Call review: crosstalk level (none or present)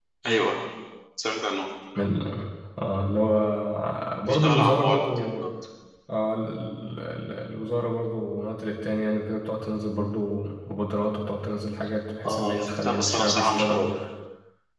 present